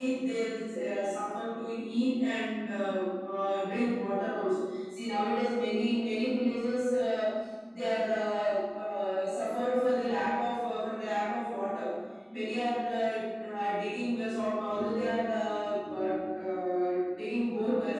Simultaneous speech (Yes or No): No